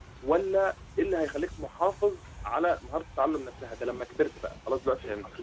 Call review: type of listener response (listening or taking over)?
listening